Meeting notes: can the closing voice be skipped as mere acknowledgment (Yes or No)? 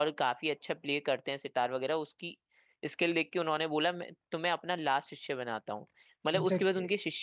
Yes